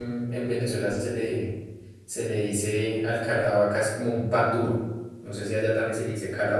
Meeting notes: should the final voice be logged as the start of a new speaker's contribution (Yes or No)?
No